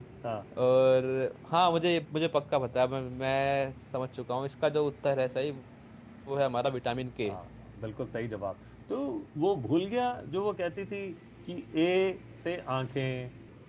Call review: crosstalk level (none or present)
none